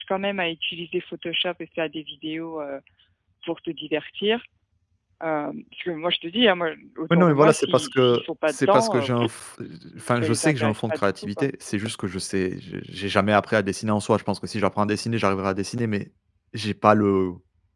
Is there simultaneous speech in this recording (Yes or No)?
Yes